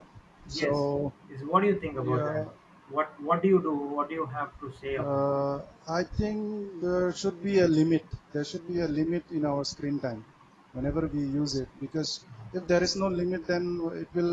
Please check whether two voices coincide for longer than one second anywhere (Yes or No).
No